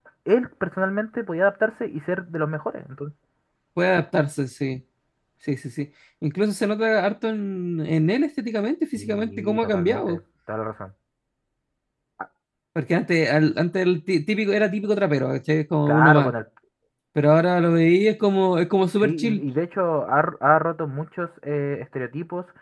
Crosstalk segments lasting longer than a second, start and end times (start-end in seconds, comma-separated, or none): 9.0-10.2